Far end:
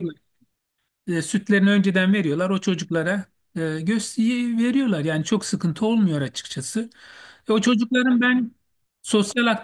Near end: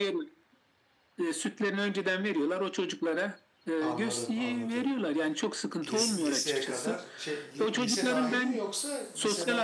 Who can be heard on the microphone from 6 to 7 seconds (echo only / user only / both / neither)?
both